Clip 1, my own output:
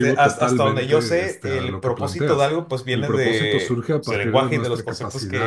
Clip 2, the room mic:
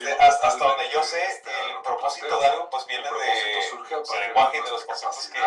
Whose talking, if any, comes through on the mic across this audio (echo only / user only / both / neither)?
echo only